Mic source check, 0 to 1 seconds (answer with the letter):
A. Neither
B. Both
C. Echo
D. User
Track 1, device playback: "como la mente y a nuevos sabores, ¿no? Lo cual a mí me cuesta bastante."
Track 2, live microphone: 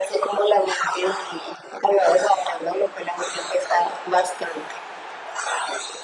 C